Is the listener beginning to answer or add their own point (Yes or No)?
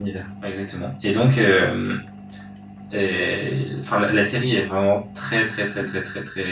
No